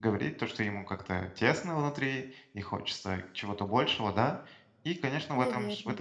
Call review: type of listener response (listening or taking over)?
listening